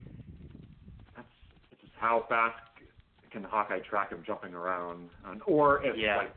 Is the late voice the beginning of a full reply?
No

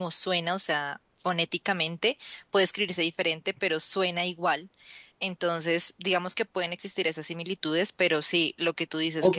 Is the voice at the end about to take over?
Yes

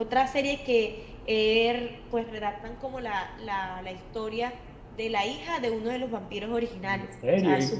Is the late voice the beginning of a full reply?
Yes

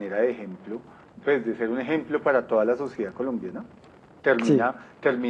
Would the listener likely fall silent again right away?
Yes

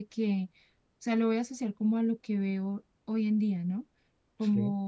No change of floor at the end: Yes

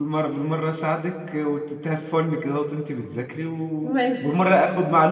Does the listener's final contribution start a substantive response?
No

